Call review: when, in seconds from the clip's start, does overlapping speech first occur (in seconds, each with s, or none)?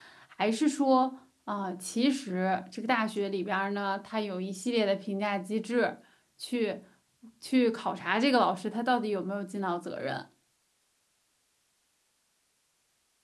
none